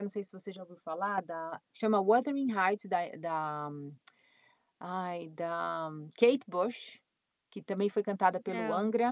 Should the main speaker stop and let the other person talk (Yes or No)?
No